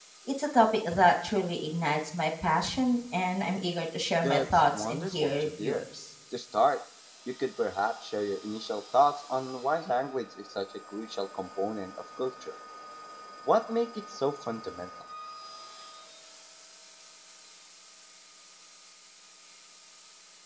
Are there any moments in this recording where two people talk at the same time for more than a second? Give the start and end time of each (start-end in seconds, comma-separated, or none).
4.2-5.8